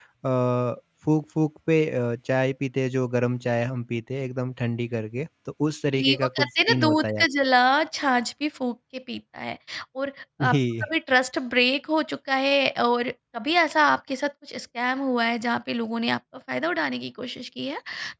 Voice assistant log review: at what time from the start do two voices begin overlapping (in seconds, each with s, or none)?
6.0 s